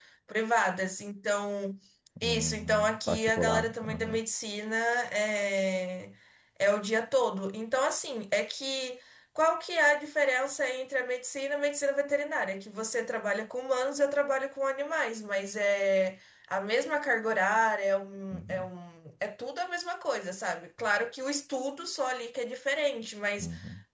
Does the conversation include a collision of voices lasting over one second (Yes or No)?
Yes